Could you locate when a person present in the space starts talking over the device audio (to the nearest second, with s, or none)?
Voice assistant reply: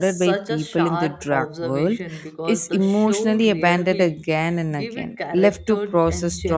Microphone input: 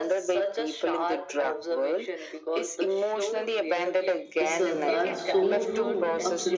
4 s